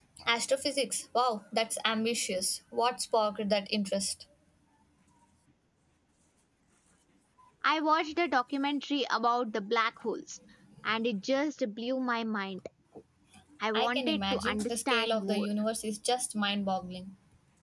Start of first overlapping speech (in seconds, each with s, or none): 13.7 s